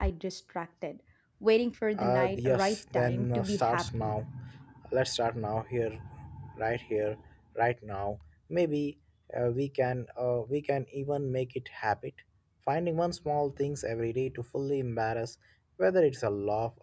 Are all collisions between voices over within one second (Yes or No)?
No